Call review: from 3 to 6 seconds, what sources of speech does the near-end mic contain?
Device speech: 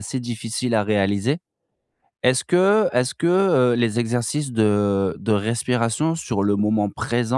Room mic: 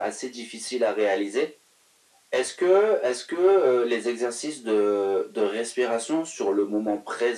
echo only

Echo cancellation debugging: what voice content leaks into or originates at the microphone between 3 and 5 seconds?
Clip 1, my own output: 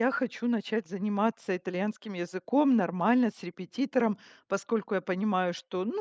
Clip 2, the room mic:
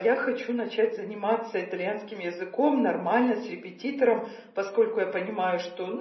echo only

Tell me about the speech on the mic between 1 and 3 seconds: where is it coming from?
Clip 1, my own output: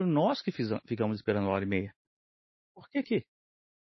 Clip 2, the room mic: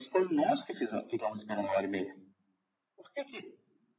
echo only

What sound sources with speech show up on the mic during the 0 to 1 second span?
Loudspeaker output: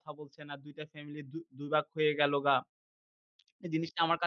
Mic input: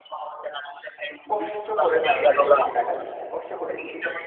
echo only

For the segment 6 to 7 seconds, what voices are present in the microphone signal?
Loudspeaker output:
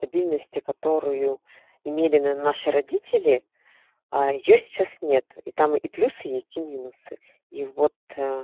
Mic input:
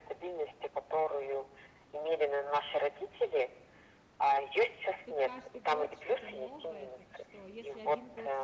both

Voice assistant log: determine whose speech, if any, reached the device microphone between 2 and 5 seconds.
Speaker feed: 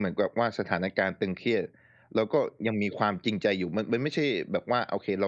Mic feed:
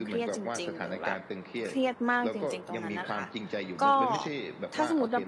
both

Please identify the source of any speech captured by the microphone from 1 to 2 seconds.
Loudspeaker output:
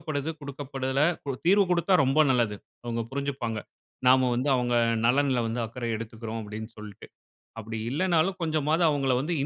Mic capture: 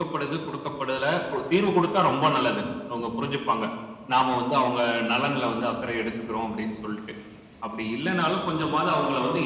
echo only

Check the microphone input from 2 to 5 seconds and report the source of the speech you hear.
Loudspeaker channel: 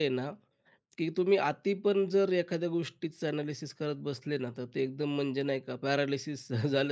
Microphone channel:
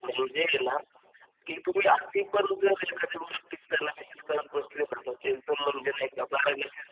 echo only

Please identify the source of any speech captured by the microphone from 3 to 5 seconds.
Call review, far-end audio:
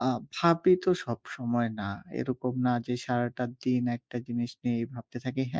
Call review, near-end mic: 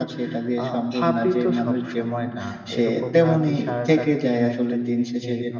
both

